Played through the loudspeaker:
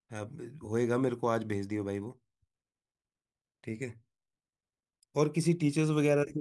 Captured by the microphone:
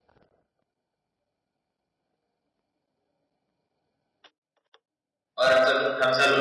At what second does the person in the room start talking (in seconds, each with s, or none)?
5.4 s